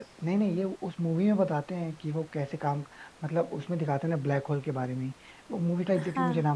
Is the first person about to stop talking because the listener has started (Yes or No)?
No